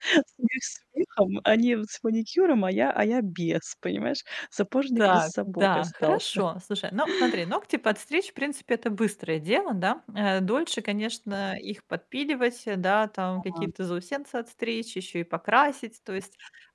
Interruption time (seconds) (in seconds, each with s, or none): 5.0 s